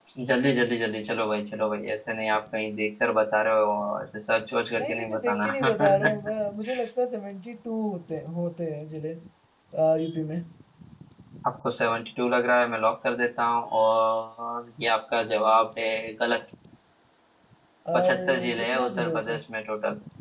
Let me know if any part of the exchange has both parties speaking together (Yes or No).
Yes